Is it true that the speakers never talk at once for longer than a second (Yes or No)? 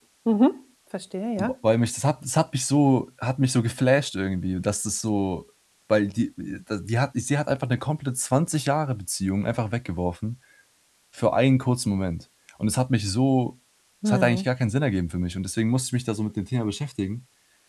Yes